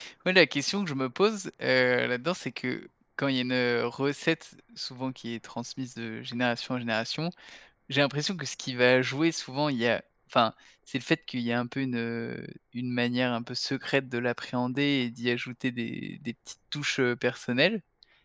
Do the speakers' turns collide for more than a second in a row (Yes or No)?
No